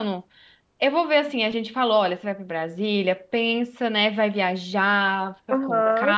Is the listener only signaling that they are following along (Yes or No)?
No